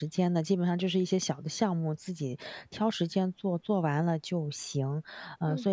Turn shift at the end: No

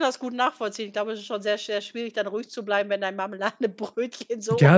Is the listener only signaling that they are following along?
No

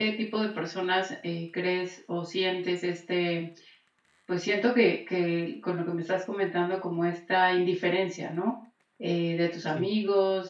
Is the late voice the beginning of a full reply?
No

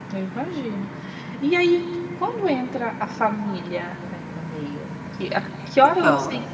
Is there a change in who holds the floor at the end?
No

